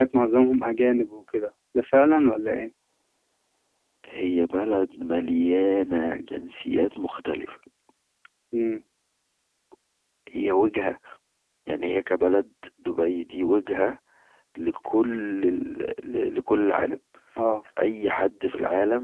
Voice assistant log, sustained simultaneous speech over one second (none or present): none